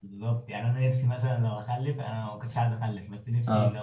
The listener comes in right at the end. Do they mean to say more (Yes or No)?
No